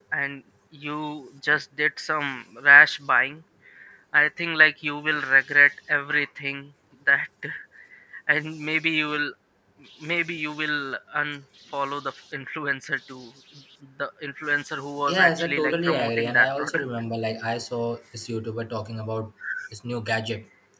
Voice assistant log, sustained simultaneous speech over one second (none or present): present